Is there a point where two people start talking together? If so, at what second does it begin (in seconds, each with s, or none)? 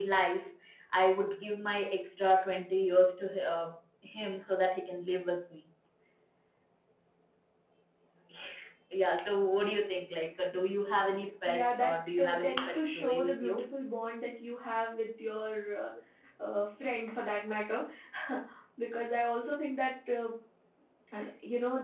11.5 s